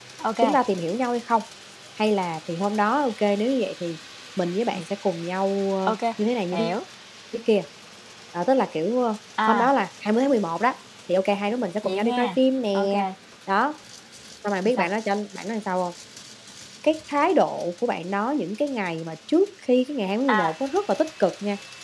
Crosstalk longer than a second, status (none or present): none